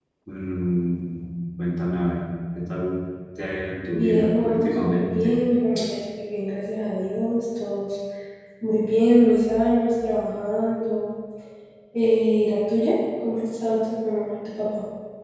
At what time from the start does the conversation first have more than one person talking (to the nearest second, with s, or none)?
4 s